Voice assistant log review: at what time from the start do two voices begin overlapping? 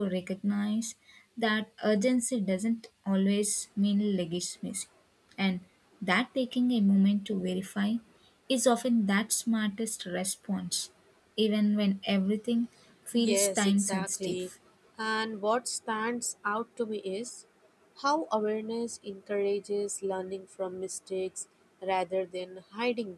13.1 s

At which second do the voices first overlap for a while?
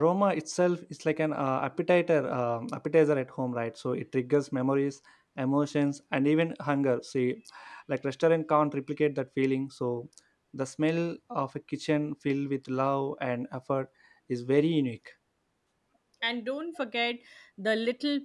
none

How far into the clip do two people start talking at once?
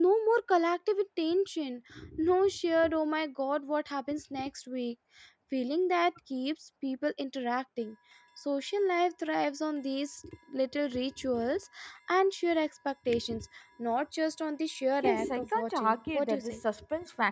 15.0 s

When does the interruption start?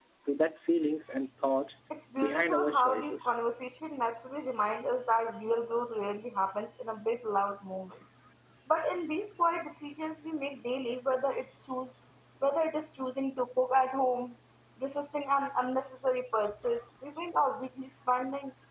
2.2 s

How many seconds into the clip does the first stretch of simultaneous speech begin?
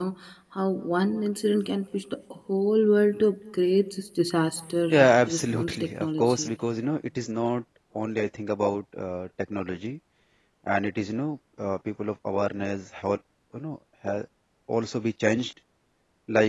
4.9 s

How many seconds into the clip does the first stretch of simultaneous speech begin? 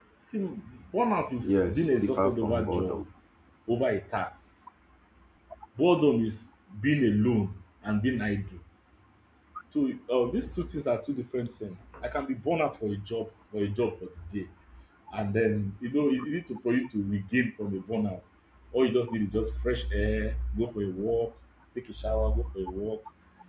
1.4 s

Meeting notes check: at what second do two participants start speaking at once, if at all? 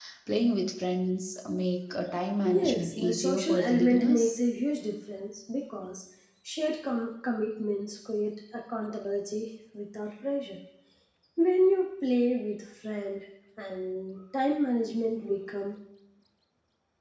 2.5 s

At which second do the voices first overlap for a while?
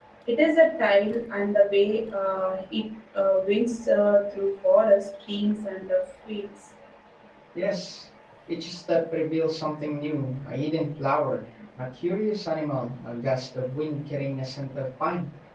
none

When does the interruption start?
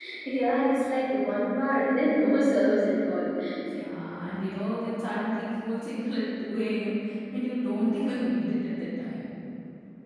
none

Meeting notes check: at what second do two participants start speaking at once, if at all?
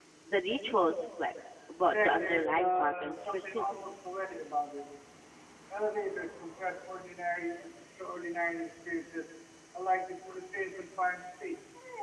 1.8 s

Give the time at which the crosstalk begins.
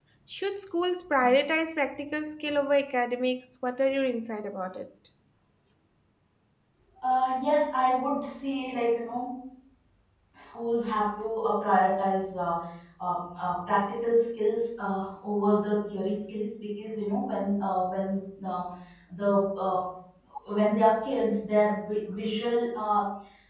none

